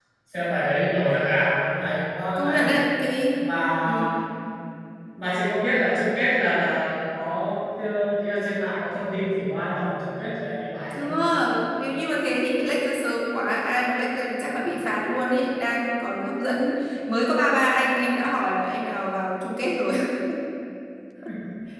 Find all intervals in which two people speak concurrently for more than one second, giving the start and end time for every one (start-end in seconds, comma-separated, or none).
none